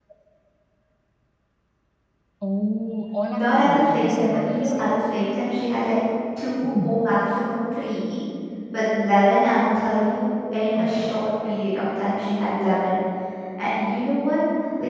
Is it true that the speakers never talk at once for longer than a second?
No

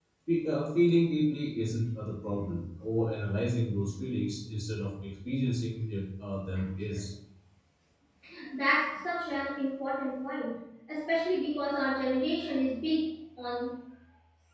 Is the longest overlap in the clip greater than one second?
No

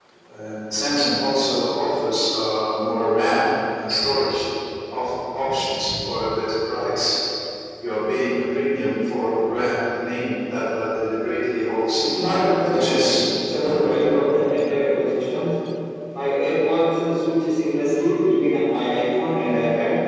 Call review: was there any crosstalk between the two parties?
Yes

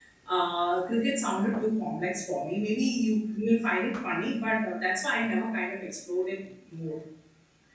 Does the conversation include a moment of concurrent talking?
No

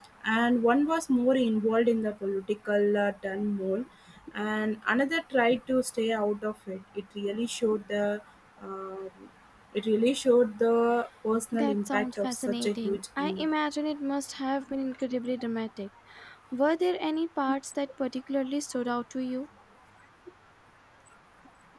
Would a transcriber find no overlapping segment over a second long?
No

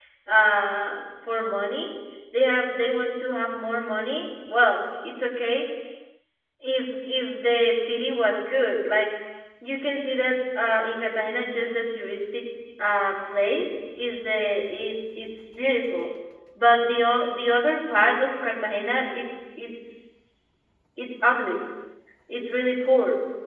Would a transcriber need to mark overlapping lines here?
No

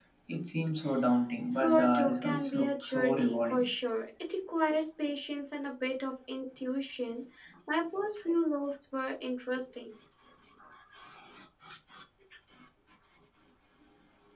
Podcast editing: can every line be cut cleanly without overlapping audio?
No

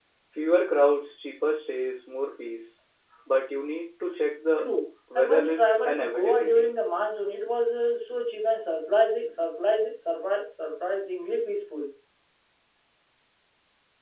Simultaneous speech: Yes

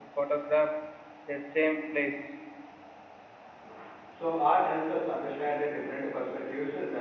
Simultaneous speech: No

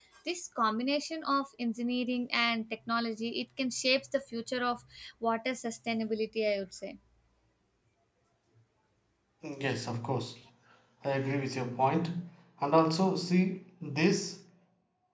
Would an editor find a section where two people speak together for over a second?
No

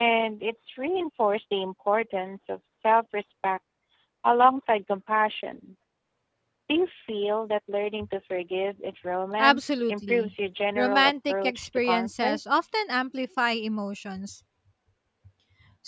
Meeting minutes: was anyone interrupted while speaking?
Yes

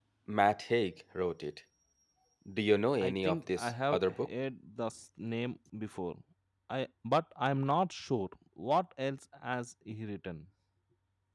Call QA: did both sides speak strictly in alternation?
No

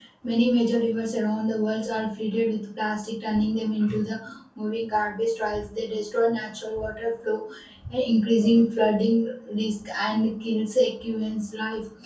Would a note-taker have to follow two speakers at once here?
No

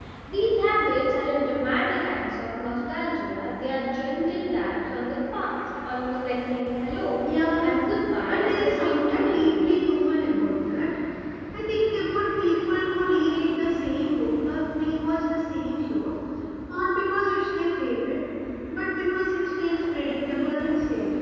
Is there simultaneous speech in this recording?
Yes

